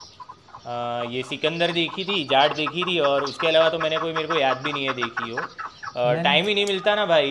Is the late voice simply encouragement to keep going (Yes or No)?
Yes